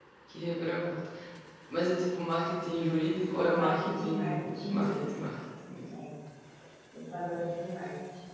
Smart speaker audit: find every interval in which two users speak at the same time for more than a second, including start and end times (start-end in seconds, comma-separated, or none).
3.6-5.2